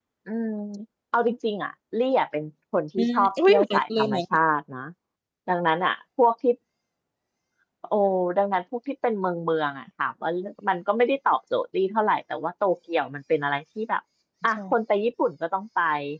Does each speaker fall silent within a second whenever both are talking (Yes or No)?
No